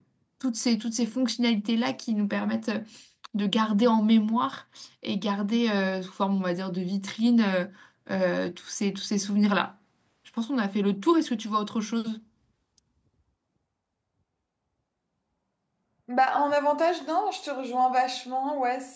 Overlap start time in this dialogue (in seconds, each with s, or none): none